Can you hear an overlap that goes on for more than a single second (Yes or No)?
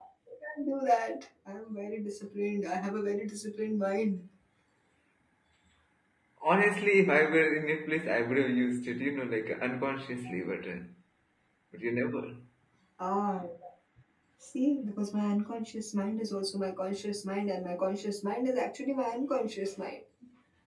No